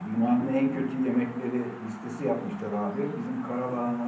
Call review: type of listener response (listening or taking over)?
listening